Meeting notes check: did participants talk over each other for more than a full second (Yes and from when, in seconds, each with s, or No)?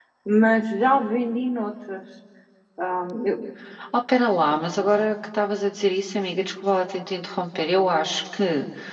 No